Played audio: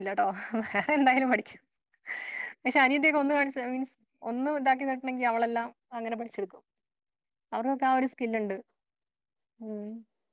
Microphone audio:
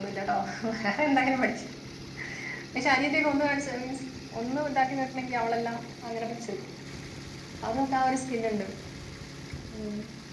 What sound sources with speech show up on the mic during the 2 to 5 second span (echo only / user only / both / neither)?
echo only